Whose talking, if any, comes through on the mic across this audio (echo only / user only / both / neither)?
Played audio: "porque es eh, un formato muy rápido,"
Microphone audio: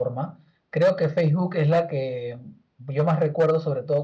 user only